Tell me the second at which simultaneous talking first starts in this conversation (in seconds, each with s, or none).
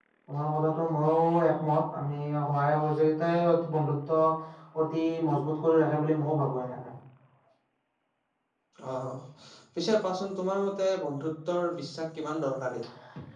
none